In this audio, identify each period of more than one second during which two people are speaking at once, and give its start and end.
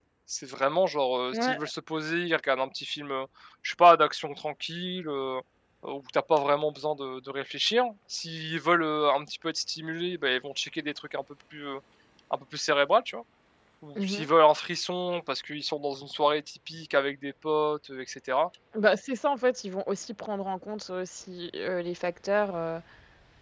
none

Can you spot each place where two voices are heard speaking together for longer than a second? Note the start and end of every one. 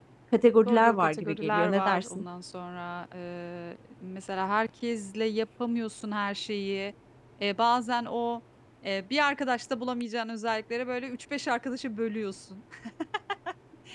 0.7-2.2

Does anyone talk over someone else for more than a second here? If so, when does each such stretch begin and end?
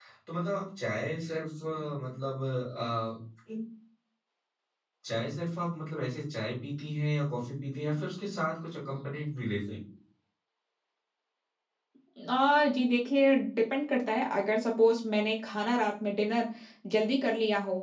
none

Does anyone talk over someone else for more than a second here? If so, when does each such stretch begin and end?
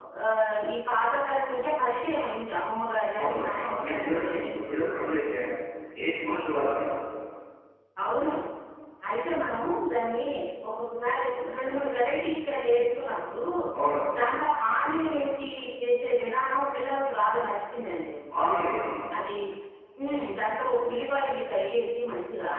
3.2-4.4

